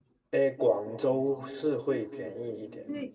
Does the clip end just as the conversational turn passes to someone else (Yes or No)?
Yes